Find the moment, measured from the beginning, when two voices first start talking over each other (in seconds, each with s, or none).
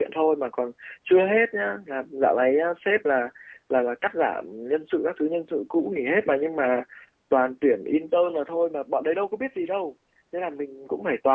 none